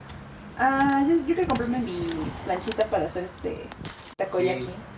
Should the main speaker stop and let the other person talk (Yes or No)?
Yes